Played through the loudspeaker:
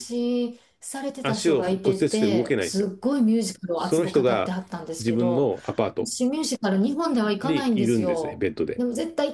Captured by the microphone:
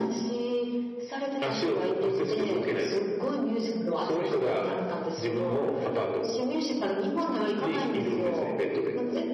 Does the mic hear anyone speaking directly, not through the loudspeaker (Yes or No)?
No